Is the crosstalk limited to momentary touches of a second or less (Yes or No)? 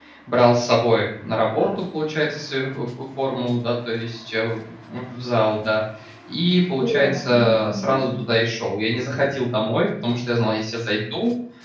No